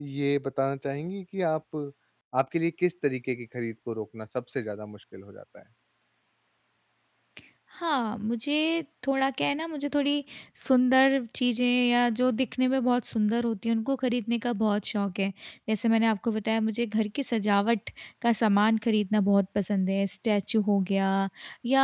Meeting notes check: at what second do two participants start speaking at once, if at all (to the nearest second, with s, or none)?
none